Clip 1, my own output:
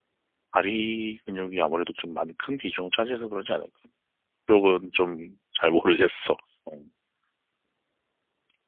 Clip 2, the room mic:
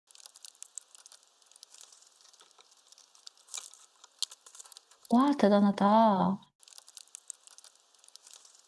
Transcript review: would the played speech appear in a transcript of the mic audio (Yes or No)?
No